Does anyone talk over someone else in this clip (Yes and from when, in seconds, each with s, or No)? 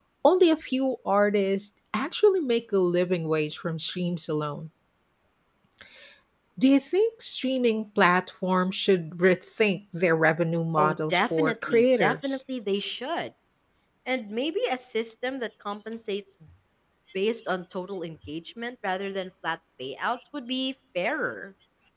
Yes, from 10.8 s